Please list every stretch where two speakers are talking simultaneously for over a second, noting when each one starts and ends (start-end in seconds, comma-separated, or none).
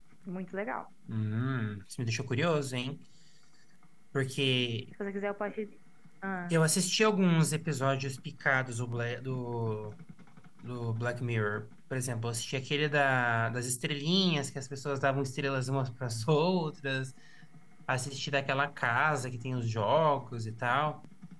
none